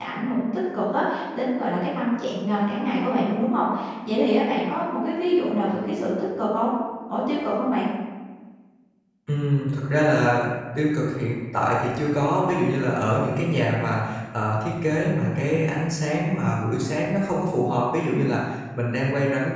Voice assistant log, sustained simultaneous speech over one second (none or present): none